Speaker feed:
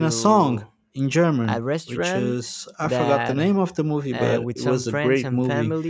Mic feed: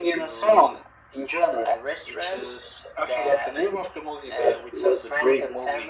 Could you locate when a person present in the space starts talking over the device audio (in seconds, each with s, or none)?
none